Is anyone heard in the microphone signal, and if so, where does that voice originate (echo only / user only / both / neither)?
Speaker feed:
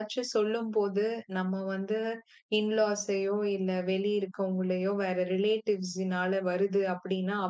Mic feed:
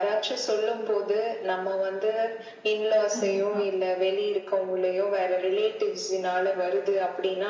both